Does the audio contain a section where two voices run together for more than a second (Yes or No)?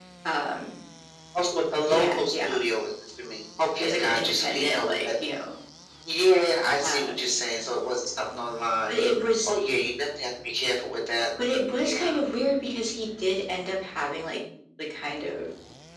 Yes